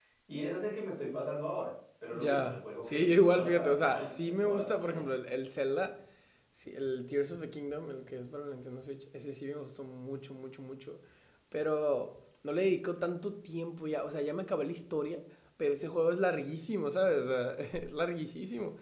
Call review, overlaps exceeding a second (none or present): present